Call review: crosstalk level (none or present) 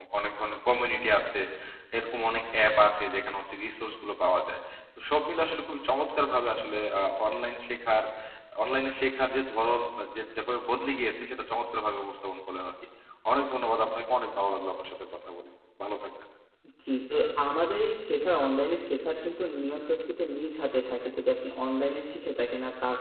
none